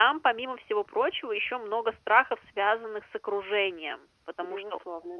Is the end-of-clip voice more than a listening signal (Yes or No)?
No